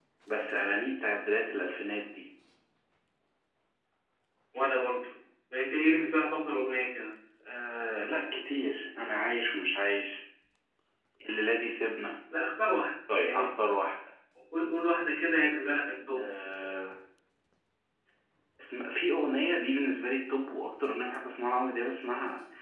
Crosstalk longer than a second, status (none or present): none